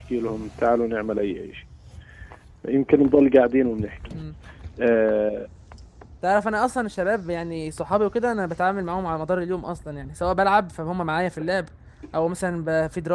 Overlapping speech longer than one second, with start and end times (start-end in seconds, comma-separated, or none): none